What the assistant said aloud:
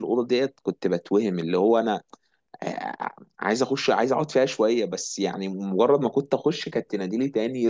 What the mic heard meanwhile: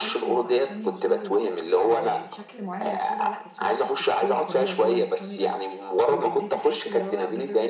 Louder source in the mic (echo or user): echo